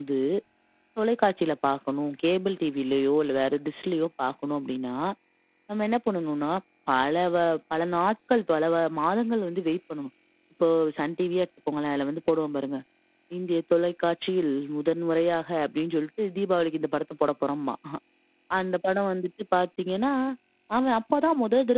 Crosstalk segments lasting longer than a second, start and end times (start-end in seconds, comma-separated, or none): none